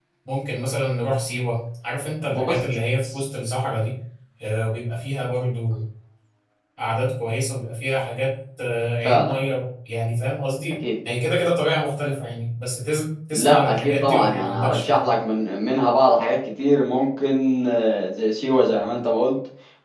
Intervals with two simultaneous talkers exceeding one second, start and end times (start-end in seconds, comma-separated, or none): 13.3-15.1